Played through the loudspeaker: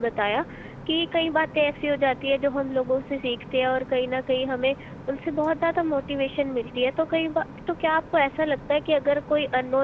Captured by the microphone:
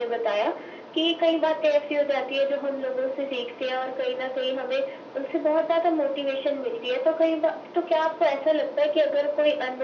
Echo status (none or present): present